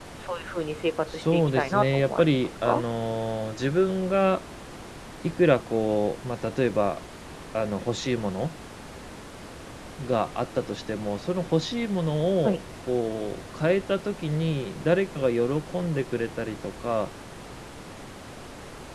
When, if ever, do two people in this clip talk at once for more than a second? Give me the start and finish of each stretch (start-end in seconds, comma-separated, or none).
1.1-2.8